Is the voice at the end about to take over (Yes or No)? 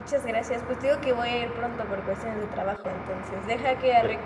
No